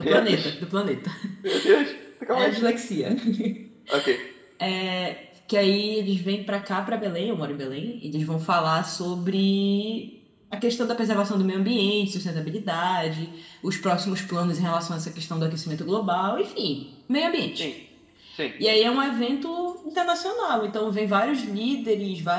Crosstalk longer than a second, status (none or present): none